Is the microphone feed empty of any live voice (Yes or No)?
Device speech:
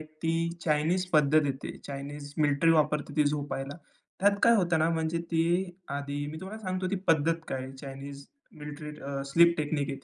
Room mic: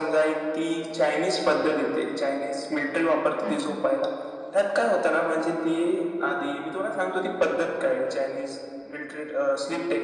No